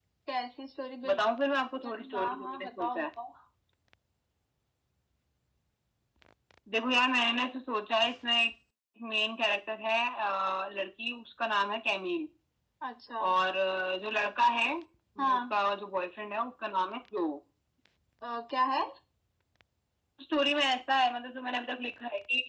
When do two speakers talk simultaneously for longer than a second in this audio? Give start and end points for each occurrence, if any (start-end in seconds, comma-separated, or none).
1.1-3.0